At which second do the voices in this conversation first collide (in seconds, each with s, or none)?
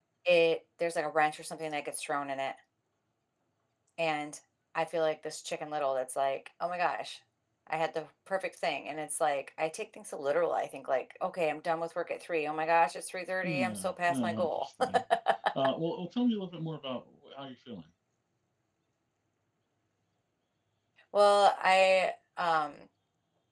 13.4 s